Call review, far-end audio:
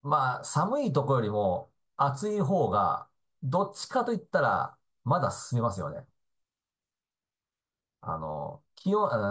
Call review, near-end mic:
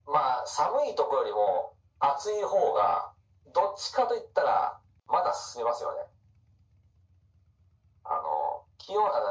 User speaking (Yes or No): No